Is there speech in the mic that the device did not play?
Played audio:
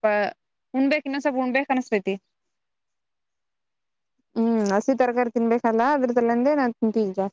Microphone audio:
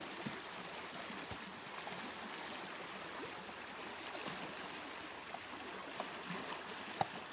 No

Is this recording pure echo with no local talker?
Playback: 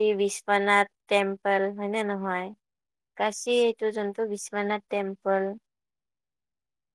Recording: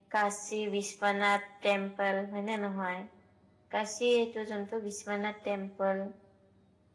Yes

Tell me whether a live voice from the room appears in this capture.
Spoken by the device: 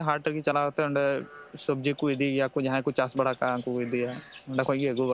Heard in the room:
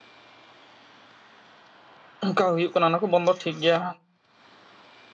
Yes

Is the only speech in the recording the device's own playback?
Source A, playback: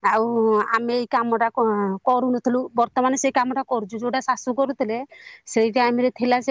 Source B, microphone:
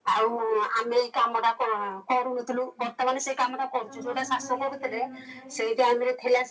No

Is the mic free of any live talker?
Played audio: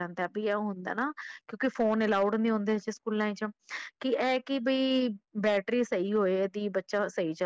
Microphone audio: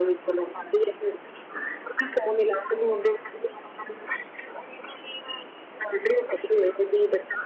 Yes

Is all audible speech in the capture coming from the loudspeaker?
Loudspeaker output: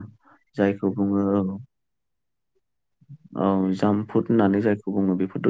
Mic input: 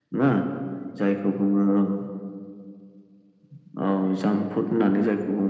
Yes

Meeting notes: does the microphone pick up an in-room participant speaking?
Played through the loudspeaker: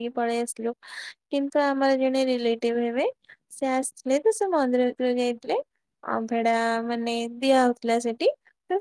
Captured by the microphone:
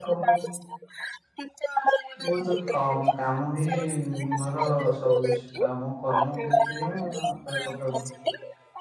Yes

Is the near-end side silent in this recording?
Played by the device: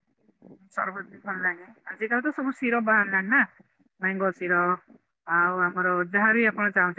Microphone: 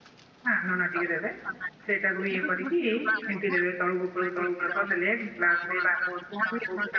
No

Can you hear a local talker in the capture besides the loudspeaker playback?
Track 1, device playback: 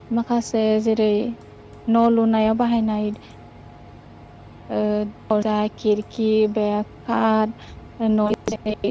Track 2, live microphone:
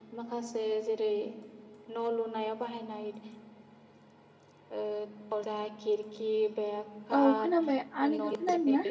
Yes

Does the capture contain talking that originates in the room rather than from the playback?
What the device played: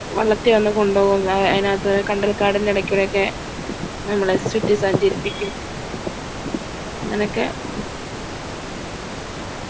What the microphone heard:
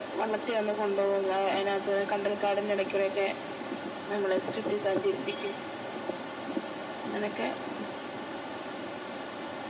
No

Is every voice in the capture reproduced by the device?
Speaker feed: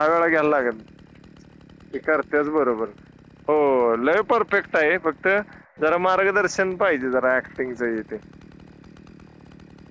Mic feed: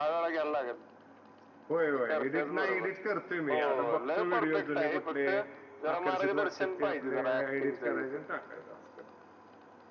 No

